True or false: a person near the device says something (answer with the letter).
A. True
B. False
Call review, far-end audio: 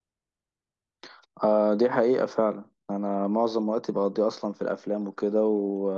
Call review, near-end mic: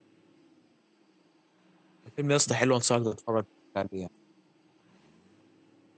A